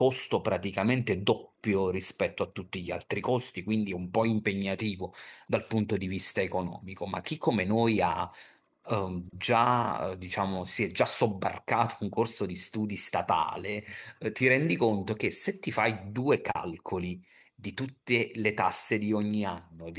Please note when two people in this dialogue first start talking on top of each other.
none

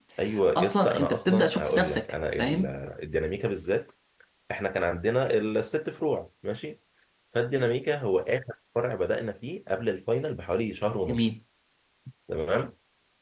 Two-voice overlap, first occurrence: 0.6 s

